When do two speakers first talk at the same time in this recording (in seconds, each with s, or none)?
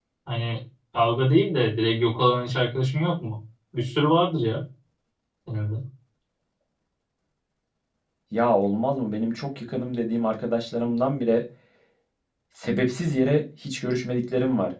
none